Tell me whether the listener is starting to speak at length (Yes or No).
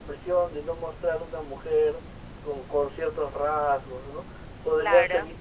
No